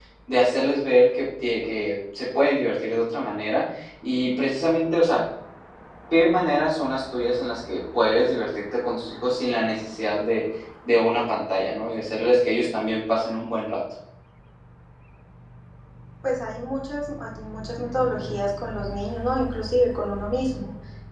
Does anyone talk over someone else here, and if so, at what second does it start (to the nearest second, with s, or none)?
none